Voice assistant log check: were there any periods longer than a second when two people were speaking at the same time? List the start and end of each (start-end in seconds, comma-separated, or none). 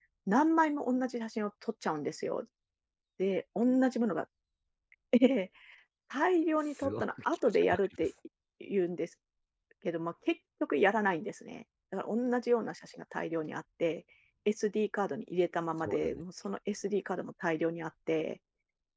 6.6-8.1